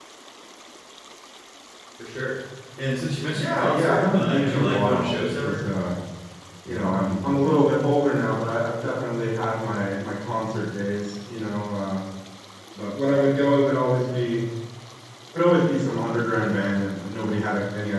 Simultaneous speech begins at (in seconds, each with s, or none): 3.3 s